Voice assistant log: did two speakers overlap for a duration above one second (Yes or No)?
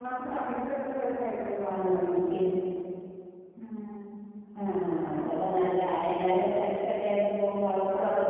No